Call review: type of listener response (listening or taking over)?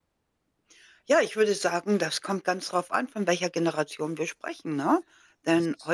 listening